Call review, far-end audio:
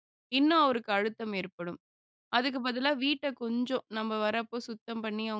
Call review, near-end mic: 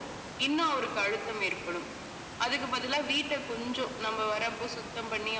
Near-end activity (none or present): none